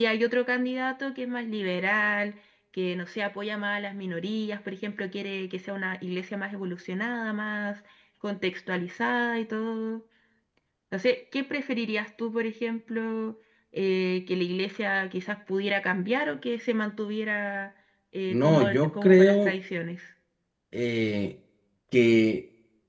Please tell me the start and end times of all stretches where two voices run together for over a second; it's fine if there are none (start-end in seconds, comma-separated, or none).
18.3-19.5